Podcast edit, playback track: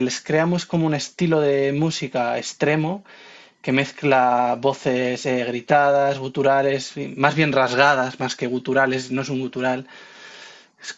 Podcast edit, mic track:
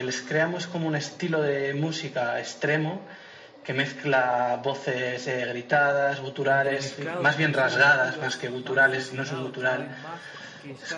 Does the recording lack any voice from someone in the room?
No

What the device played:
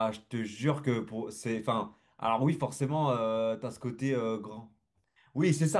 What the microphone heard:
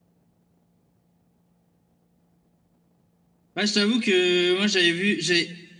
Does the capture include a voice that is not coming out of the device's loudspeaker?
Yes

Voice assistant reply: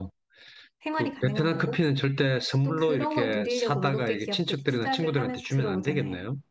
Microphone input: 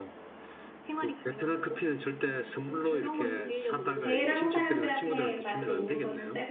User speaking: Yes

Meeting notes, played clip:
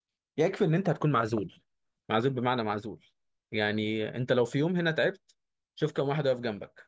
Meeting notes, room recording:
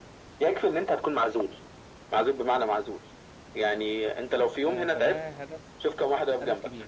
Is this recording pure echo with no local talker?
No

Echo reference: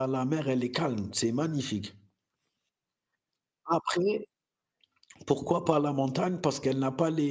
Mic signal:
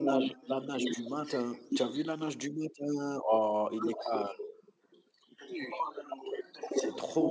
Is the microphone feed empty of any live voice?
No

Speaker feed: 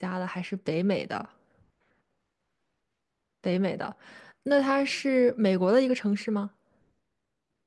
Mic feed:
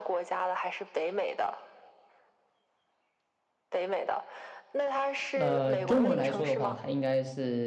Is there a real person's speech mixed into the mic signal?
Yes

